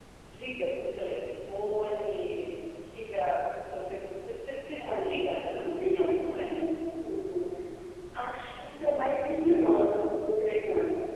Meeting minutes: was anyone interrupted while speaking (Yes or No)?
Yes